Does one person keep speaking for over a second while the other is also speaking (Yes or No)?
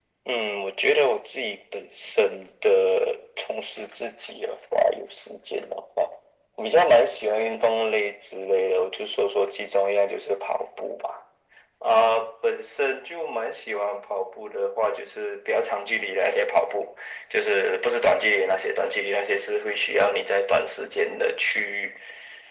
No